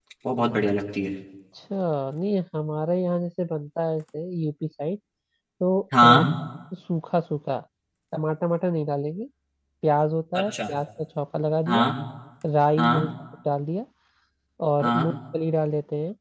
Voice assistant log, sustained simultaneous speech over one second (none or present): none